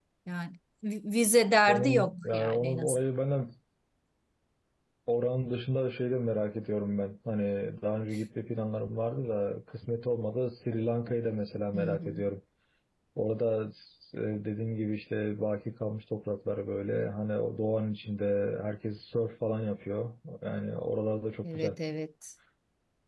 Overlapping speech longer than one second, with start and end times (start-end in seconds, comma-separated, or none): 1.7-3.0